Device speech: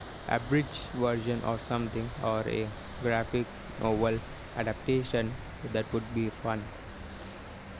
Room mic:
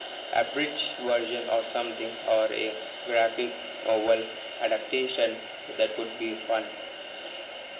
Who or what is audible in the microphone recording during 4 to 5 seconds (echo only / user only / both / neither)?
echo only